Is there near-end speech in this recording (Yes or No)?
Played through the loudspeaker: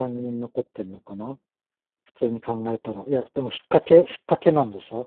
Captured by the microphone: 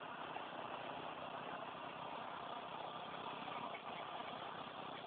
No